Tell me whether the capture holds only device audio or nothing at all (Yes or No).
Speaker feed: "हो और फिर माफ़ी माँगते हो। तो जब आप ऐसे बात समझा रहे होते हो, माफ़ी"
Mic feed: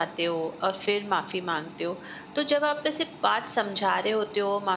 Yes